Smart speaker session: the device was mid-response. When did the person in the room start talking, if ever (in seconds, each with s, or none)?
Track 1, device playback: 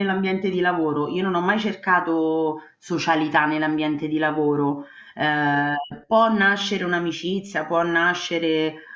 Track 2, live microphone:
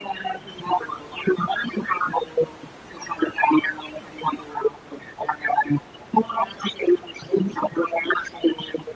none